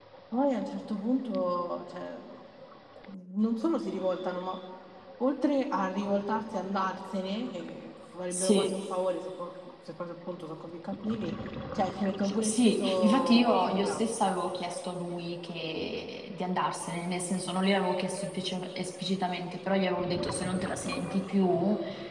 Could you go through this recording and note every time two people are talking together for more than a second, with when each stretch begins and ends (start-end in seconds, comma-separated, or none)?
12.4-14.3